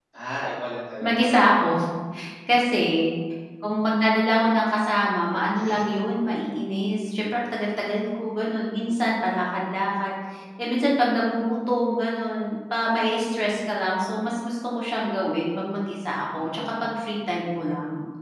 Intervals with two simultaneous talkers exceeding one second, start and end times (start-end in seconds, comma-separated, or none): none